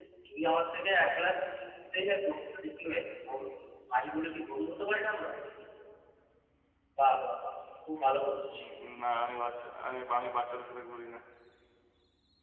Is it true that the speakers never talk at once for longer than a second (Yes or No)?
Yes